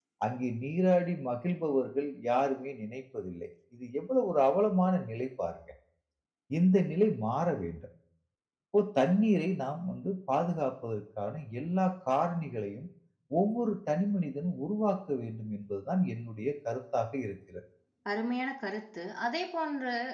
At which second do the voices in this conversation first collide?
none

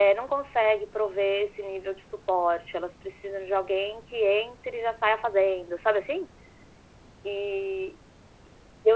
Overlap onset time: none

